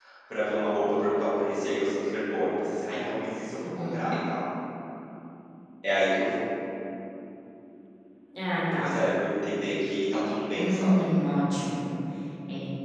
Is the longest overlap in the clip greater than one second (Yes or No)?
No